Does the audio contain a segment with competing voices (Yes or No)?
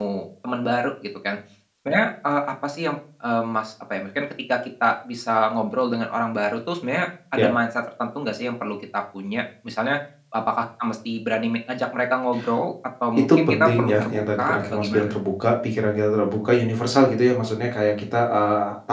Yes